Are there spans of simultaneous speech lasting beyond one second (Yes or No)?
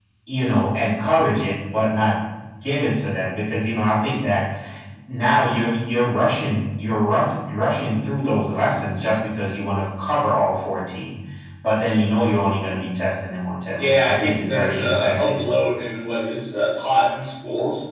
Yes